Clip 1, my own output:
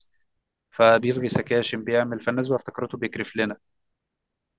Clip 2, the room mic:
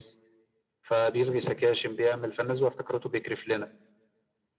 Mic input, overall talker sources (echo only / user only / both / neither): echo only